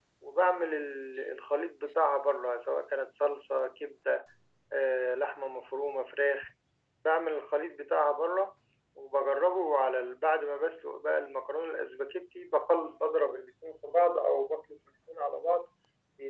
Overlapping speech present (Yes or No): No